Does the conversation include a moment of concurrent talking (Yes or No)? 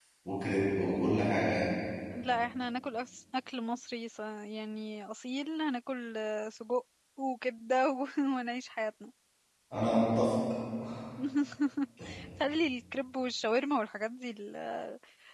No